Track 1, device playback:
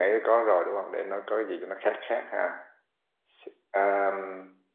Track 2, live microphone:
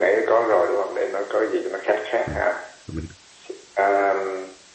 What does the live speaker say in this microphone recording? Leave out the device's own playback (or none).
Ờ, mình